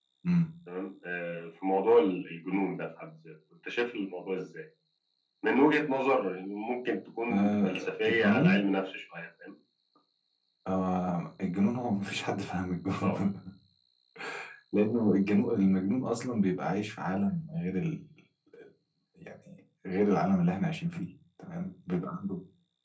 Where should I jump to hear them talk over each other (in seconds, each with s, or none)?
7.3 s